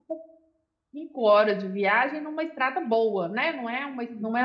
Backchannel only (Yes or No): No